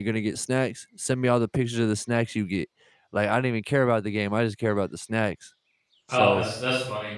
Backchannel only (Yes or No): No